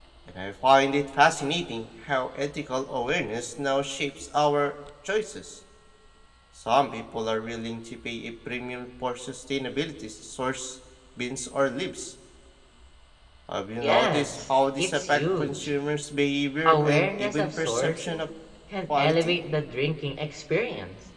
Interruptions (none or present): present